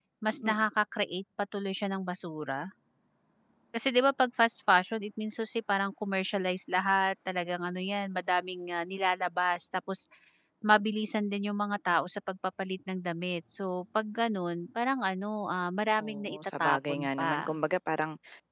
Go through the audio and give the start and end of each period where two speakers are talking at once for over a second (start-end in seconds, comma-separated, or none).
16.0-17.5